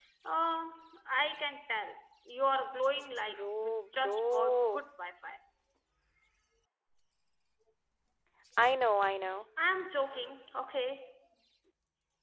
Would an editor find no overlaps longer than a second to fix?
No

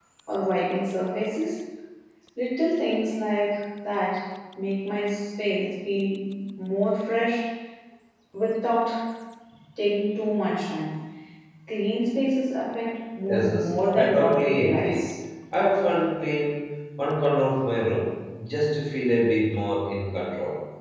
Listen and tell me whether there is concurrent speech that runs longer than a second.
Yes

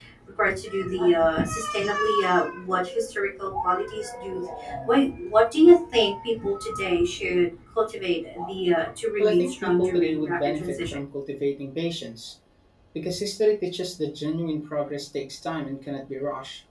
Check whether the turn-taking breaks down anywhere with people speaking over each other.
Yes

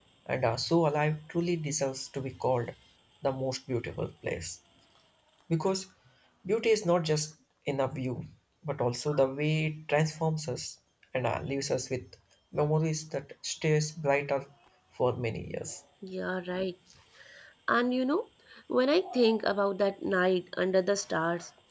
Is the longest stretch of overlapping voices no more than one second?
Yes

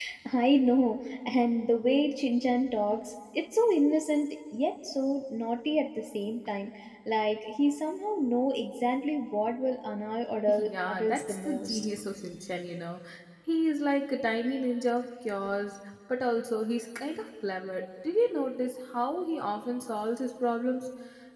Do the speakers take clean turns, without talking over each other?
No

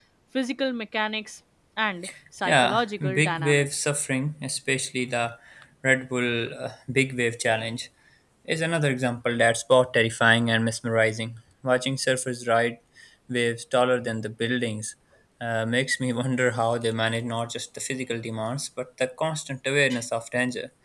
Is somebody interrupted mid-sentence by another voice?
Yes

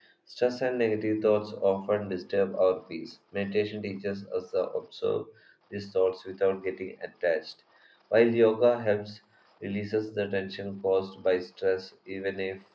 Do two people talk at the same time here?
No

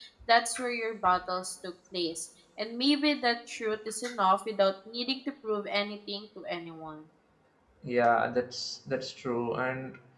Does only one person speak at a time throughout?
Yes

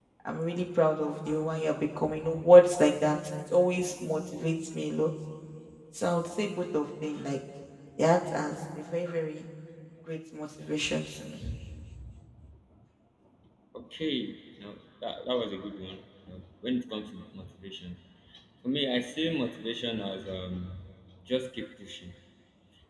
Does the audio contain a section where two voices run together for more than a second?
No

